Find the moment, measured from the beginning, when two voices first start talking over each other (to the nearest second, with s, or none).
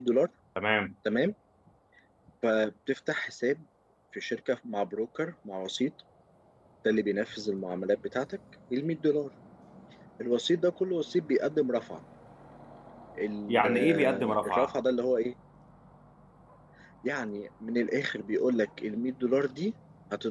13 s